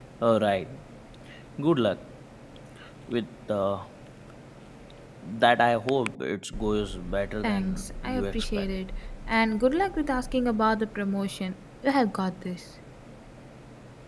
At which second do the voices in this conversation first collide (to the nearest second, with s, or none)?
7 s